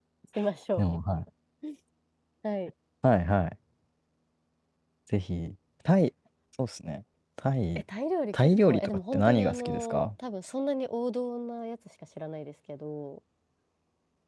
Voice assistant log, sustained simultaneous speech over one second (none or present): present